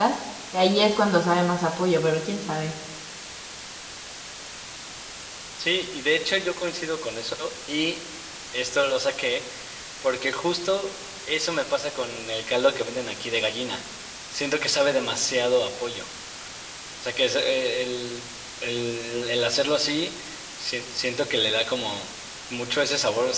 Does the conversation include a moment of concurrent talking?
No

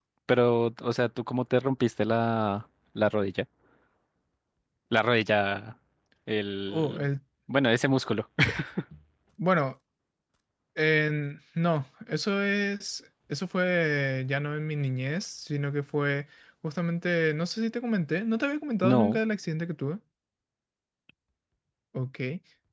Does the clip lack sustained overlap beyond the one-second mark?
Yes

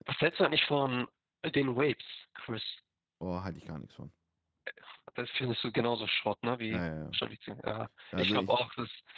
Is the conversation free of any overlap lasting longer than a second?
Yes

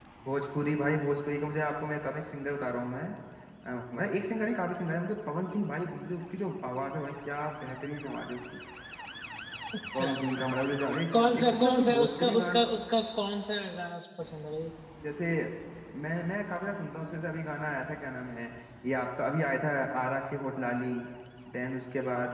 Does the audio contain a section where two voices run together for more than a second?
Yes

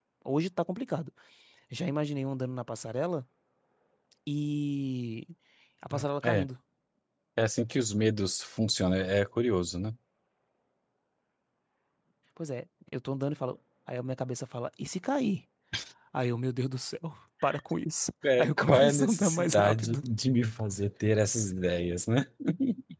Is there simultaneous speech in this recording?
Yes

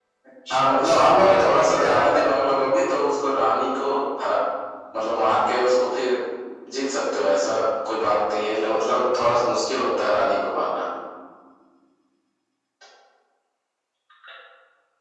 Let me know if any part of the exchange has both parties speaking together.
Yes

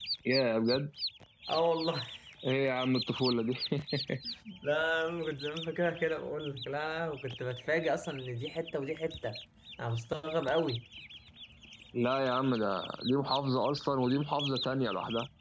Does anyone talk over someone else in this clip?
No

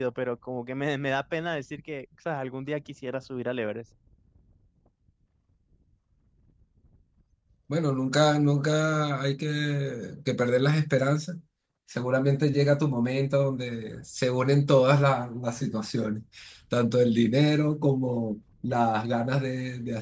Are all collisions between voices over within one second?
Yes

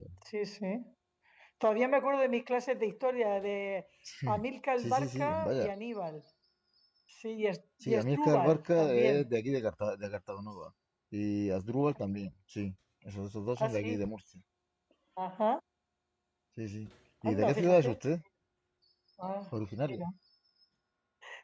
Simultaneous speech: Yes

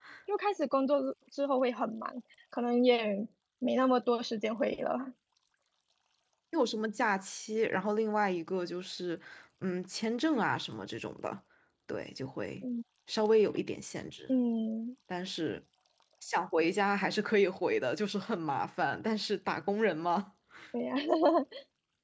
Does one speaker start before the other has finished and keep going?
No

